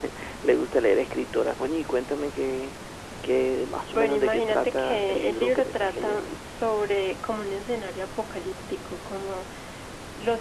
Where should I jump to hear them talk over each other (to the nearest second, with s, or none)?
4 s